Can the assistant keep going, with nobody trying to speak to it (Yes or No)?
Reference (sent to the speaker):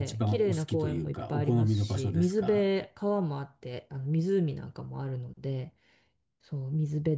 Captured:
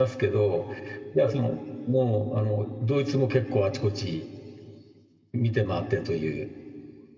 No